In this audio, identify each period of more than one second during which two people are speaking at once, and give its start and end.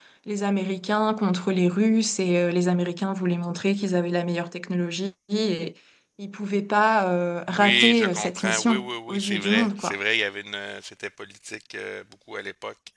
7.6-10.0

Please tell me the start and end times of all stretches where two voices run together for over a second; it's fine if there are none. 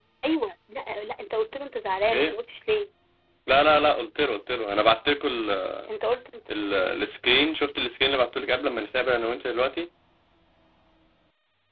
none

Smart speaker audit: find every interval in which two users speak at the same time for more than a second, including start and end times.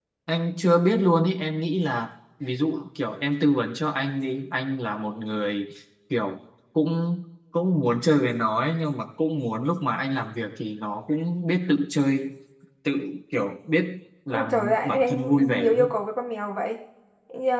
14.3-15.8

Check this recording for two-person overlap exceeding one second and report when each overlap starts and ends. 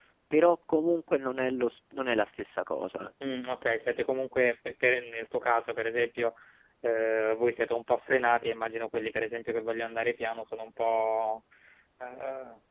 none

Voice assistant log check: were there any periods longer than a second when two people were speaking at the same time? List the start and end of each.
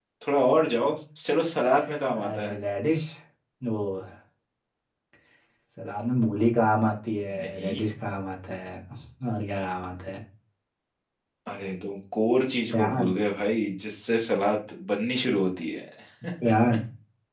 none

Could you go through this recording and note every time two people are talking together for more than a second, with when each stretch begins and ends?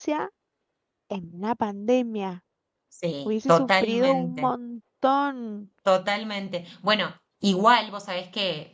3.2-4.5

